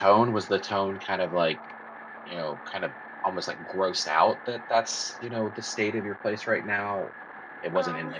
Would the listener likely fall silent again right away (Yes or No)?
Yes